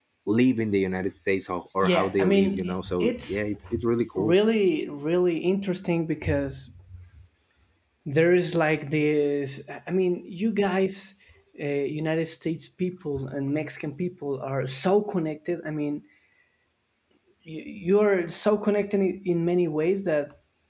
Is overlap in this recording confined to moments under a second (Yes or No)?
No